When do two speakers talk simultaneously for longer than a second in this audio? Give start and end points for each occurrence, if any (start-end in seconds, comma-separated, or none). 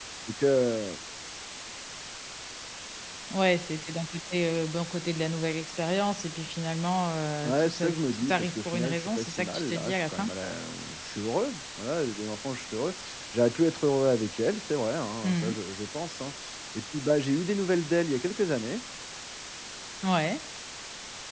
7.4-10.3